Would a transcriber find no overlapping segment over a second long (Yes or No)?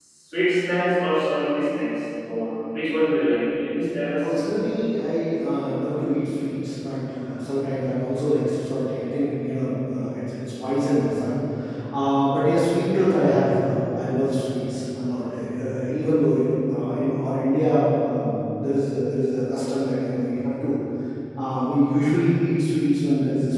Yes